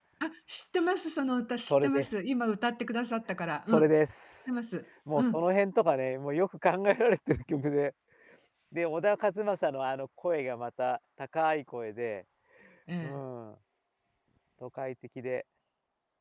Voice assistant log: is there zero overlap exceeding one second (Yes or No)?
Yes